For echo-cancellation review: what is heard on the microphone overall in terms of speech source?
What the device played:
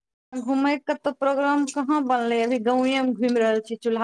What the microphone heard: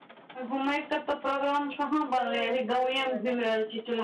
both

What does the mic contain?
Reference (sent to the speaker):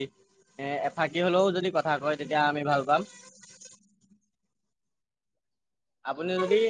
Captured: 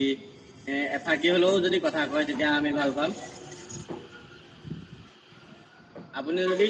echo only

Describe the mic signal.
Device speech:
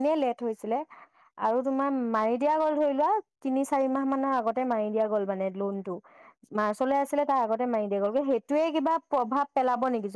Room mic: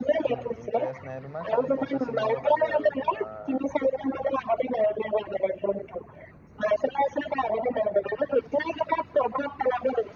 both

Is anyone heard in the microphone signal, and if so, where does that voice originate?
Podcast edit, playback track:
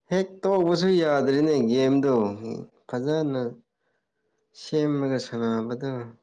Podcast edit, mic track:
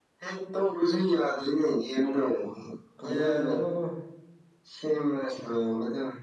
both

